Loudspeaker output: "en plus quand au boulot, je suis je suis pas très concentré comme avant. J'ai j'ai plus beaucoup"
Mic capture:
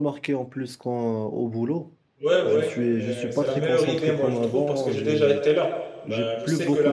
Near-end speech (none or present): present